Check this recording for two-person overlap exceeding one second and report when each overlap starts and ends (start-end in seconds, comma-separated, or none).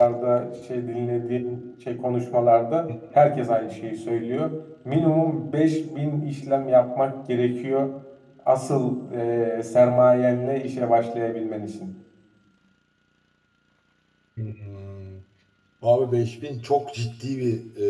none